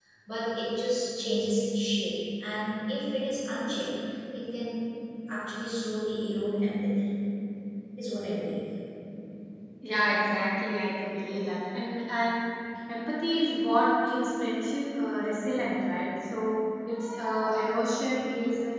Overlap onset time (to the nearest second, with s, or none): none